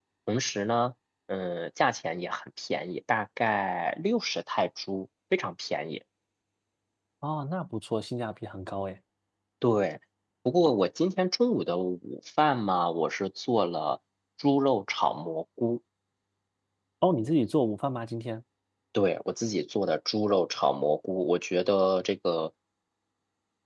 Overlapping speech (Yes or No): No